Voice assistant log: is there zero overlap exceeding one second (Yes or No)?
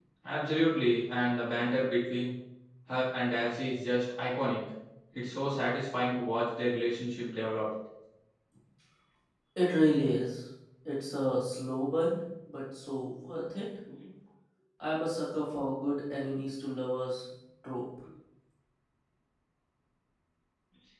Yes